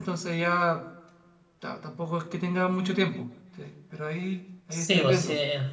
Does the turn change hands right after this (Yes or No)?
Yes